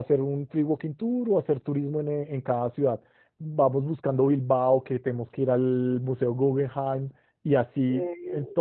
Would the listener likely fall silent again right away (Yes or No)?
Yes